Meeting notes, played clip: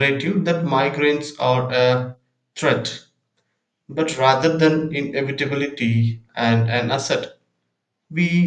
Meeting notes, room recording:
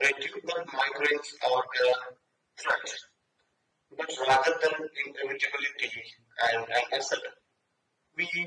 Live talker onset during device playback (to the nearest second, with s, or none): none